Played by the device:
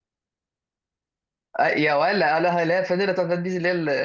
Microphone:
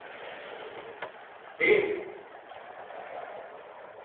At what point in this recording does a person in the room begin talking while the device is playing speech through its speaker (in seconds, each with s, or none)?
1.6 s